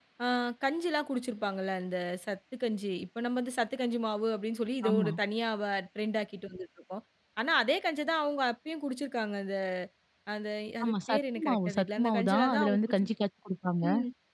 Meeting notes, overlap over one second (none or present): present